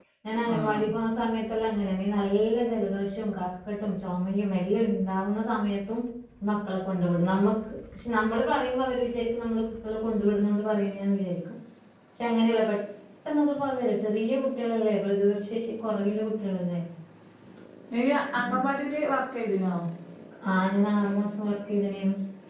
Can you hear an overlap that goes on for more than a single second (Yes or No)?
No